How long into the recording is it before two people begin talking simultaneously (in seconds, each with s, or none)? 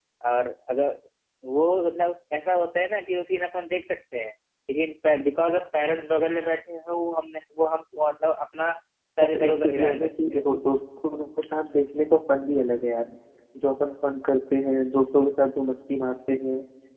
9.2 s